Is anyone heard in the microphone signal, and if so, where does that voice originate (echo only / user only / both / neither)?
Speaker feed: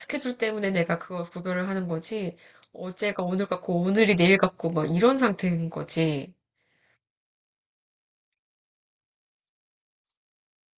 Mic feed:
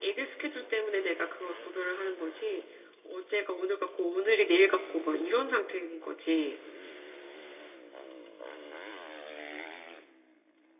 echo only